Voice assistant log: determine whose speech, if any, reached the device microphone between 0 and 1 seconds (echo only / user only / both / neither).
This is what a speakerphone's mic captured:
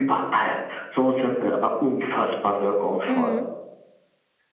echo only